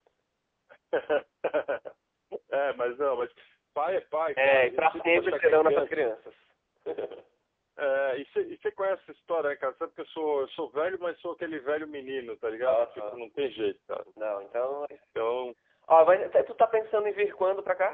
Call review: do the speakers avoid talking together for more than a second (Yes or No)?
No